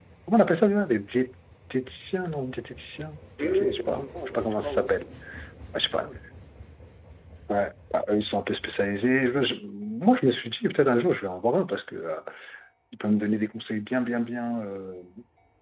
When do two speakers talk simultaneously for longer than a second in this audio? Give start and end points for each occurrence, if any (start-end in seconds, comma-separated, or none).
3.4-4.9